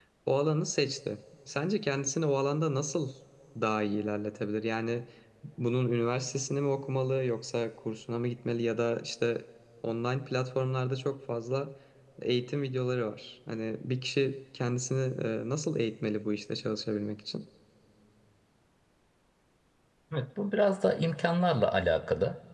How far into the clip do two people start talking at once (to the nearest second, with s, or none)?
none